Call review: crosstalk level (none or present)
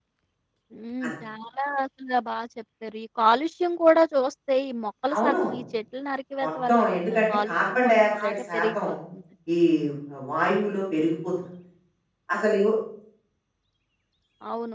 present